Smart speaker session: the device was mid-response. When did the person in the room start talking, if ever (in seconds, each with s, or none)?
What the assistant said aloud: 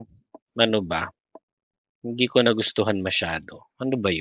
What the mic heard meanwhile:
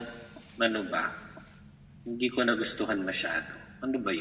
none